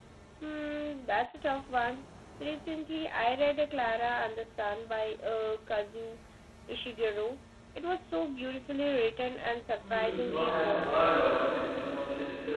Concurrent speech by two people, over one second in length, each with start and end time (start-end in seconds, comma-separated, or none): 9.8-11.1